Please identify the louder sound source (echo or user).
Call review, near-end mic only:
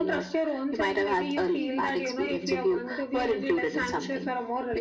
echo